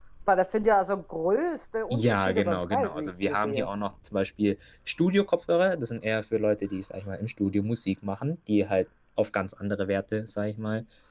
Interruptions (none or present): present